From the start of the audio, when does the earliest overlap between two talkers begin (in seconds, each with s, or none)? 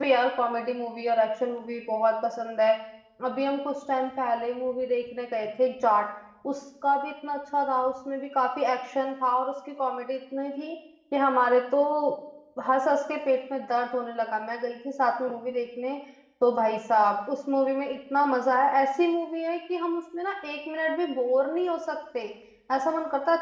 none